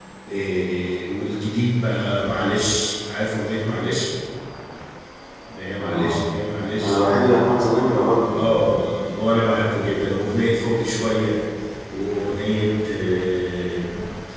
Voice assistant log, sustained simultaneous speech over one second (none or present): none